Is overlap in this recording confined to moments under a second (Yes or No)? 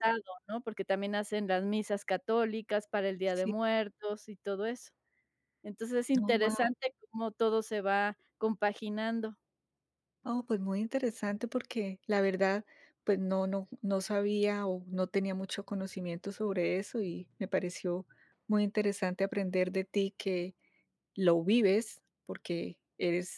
Yes